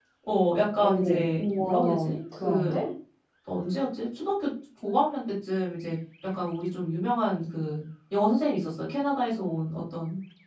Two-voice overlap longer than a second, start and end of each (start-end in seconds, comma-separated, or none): 0.8-2.8